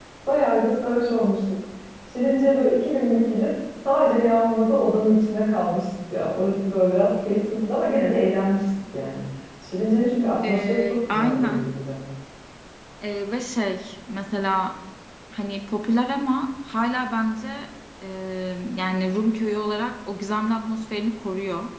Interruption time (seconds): 10.5 s

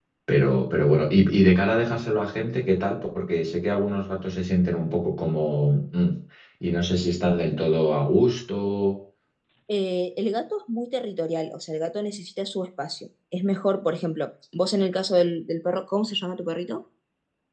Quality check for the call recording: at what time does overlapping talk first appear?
none

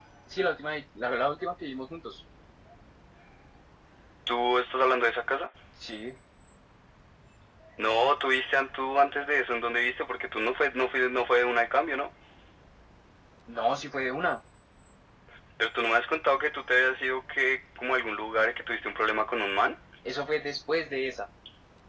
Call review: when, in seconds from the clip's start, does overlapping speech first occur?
none

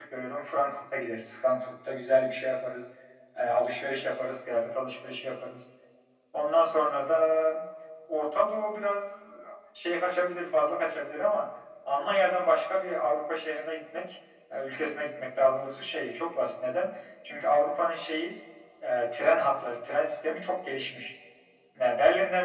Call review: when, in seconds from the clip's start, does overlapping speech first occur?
none

